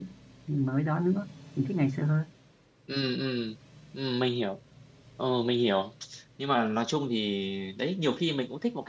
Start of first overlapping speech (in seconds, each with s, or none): none